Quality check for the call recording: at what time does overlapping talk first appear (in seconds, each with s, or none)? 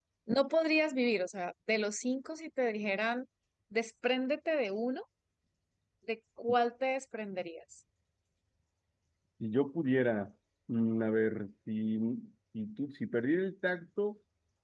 none